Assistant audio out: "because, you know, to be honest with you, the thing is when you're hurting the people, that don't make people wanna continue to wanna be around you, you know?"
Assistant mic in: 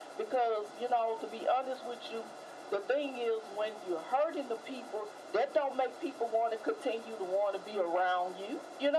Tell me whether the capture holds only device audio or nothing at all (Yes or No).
Yes